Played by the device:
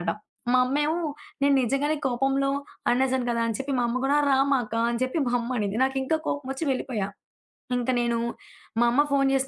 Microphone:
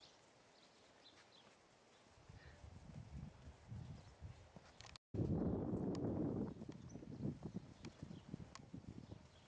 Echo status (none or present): none